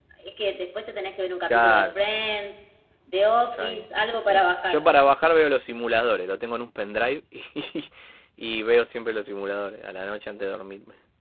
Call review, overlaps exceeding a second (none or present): none